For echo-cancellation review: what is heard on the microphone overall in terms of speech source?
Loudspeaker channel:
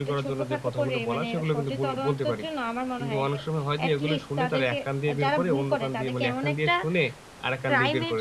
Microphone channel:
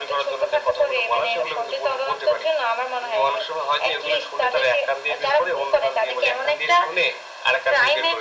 echo only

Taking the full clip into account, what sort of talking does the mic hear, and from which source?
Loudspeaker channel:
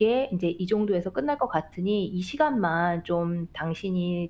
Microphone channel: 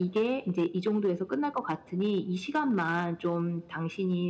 echo only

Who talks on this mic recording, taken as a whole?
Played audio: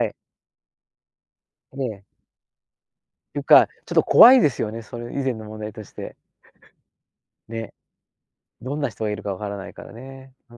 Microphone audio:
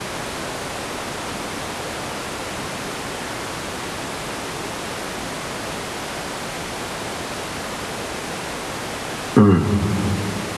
user only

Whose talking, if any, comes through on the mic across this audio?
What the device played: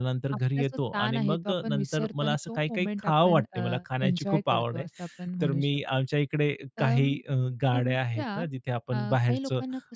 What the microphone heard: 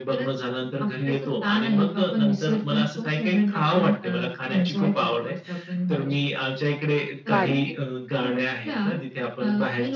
both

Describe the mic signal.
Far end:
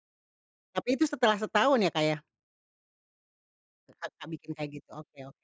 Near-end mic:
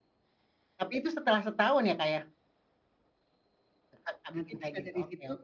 both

